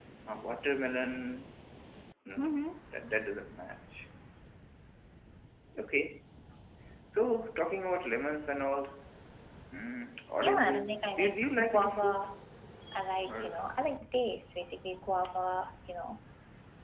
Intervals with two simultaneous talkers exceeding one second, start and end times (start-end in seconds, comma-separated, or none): 10.4-12.3